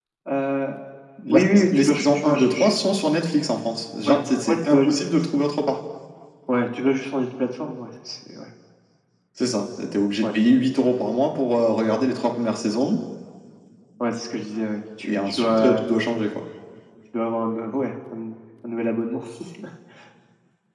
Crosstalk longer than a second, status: present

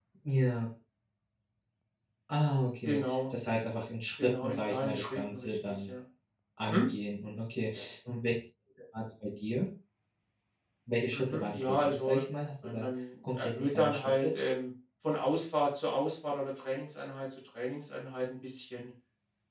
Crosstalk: present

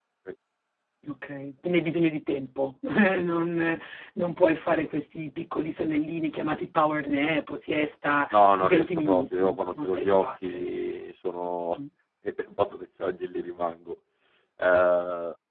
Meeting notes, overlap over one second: present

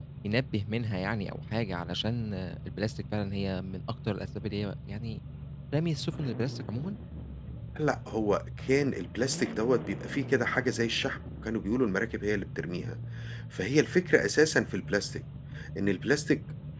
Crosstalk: none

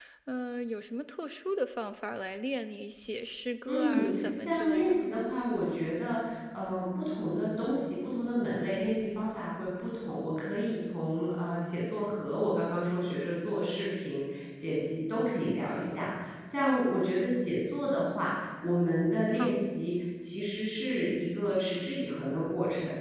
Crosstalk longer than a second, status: present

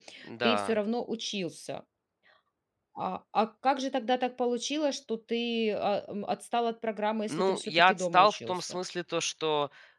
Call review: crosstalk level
present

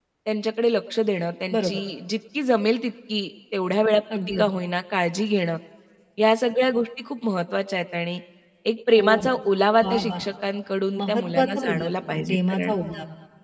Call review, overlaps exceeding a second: present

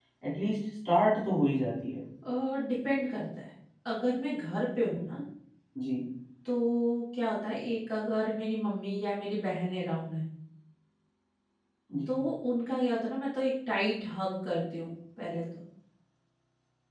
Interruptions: none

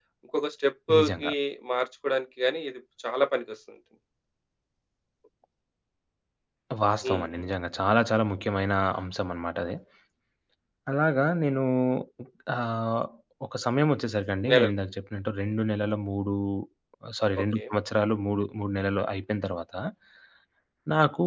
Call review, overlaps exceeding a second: none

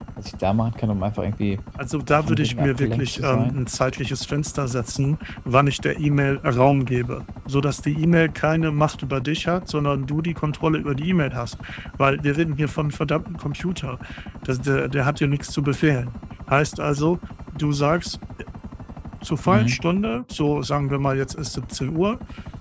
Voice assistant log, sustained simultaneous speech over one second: present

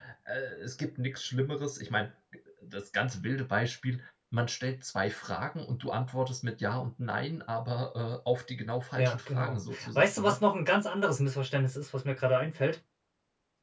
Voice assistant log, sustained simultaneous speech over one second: present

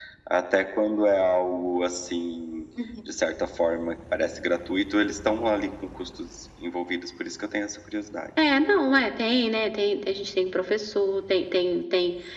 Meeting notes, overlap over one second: none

